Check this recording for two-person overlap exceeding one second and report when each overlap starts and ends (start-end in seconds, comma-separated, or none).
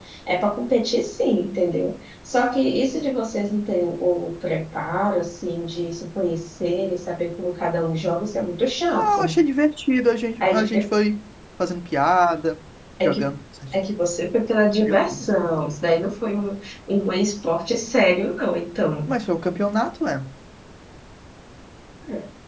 none